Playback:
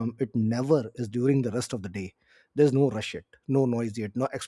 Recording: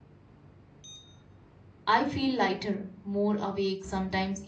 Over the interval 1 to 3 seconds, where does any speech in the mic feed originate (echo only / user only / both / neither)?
user only